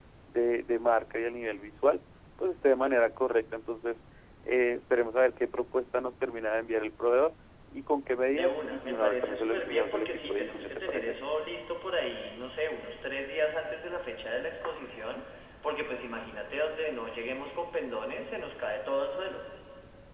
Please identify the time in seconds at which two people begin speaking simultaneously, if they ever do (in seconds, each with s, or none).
8.3 s